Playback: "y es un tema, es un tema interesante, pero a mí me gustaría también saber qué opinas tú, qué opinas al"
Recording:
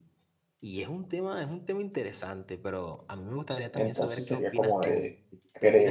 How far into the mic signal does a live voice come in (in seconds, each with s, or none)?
3.7 s